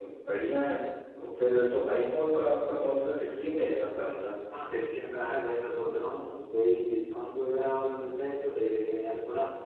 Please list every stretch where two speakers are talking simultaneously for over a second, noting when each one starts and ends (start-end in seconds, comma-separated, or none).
none